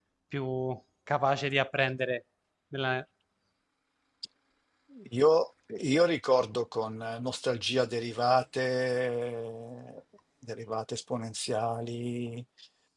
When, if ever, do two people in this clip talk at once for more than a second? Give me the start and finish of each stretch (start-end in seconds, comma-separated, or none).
none